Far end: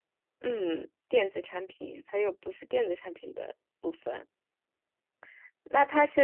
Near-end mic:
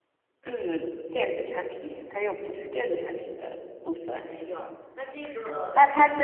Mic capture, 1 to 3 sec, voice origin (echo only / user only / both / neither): echo only